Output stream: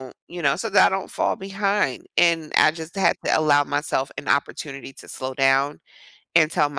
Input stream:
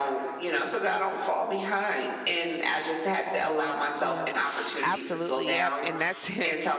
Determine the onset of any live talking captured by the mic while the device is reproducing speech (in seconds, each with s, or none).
3.3 s